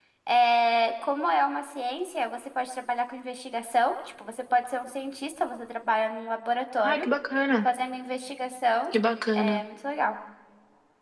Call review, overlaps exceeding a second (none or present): none